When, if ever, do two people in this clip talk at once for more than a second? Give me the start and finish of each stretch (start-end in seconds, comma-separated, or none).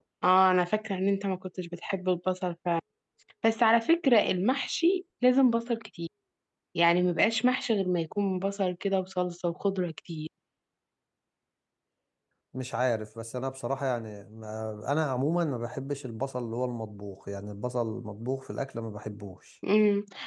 none